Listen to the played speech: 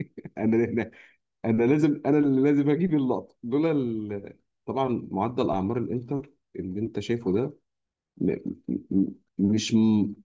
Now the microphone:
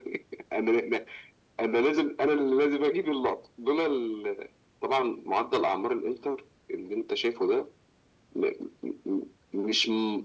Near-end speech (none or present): none